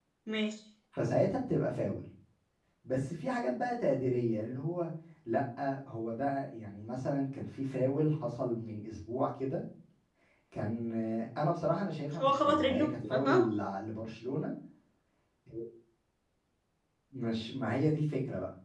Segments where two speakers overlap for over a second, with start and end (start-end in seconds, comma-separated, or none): 12.2-13.5